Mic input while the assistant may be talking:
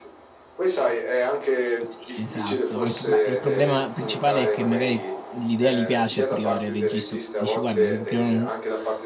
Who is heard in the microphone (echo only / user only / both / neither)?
both